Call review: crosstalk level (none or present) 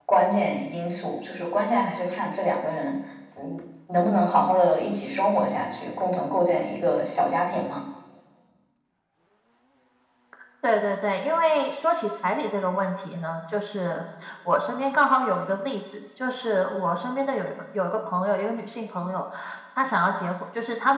none